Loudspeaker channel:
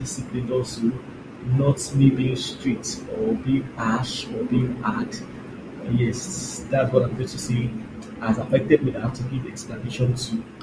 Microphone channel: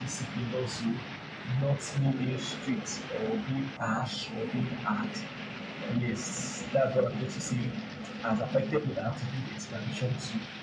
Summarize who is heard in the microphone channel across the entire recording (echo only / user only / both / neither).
echo only